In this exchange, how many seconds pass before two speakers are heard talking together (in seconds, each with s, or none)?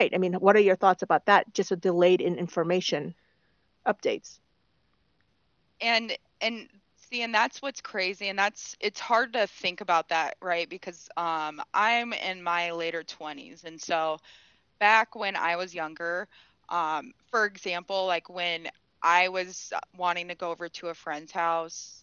none